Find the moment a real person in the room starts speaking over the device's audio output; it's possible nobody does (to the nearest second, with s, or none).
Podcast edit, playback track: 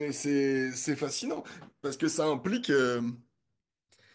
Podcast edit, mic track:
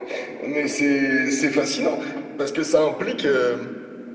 none